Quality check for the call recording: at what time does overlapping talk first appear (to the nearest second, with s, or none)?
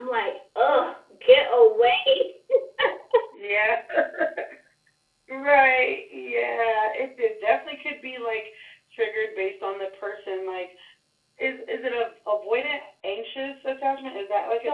none